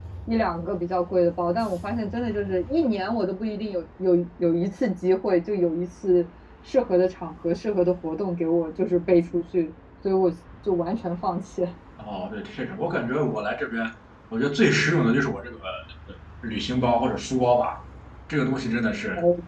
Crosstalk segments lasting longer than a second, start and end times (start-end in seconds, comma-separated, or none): none